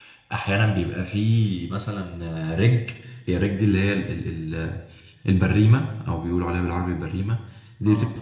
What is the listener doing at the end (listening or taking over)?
listening